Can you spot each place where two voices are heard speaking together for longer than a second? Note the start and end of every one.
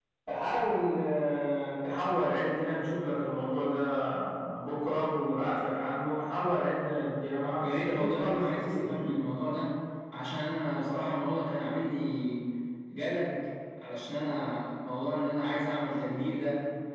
7.6-9.1

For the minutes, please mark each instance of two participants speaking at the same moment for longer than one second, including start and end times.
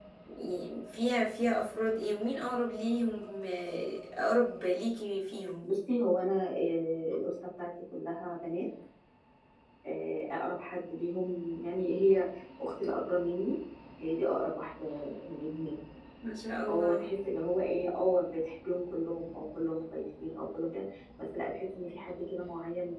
none

